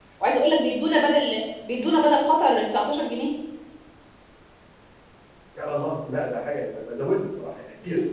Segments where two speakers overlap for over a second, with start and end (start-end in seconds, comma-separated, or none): none